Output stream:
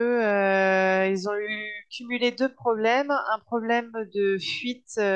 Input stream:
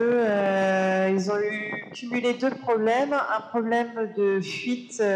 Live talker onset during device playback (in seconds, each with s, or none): none